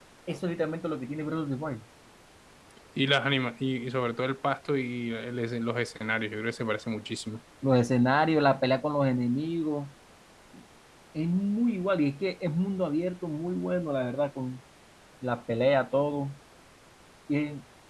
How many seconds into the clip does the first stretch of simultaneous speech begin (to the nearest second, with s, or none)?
none